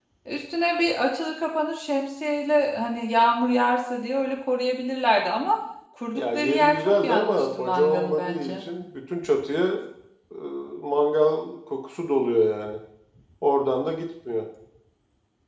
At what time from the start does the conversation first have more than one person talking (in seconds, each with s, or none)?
6.2 s